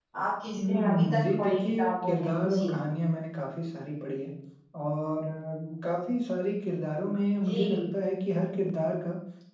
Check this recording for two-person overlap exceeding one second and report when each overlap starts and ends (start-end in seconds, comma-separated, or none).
0.7-2.7